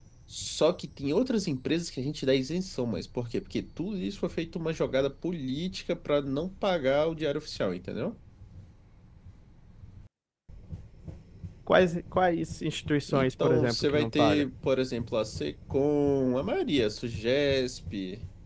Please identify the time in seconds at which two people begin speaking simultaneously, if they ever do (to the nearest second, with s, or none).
13 s